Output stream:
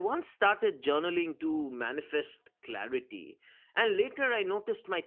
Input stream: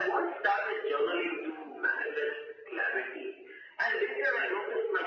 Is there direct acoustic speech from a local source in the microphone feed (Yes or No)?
No